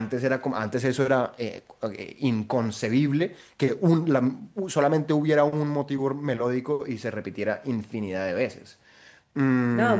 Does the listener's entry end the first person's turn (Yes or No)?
Yes